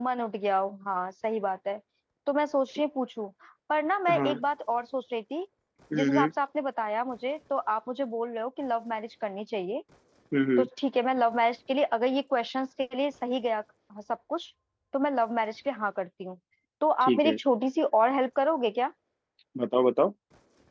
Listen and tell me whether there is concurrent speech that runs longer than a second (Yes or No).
No